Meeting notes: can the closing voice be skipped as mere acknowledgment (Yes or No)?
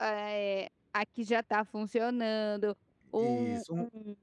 Yes